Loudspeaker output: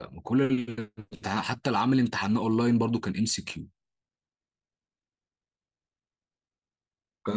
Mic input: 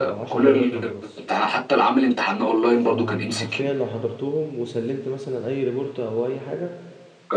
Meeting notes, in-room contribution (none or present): present